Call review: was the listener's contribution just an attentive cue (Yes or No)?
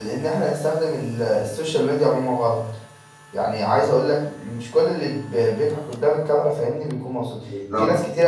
Yes